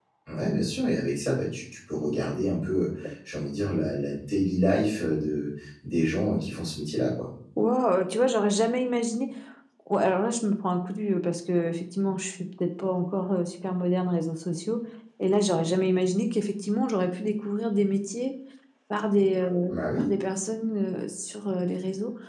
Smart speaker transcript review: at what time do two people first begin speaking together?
none

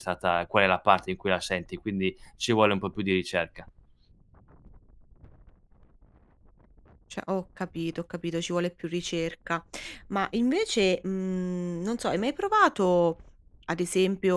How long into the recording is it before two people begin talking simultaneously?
none

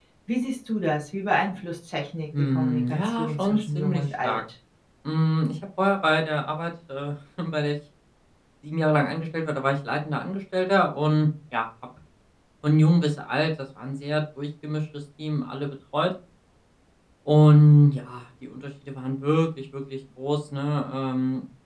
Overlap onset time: 2.3 s

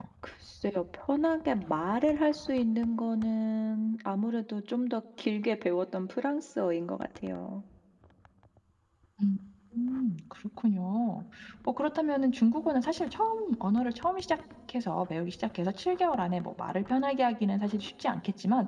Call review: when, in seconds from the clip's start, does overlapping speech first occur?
none

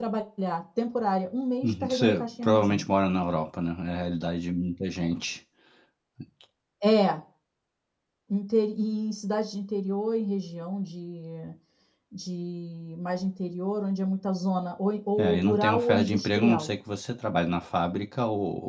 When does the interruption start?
1.6 s

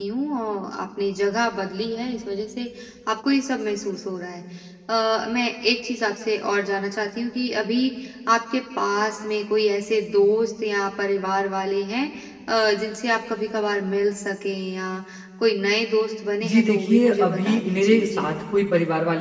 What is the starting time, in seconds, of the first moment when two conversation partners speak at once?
16.4 s

